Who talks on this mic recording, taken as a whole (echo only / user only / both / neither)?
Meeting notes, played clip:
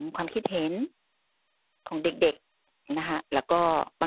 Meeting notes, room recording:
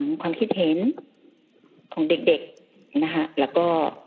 echo only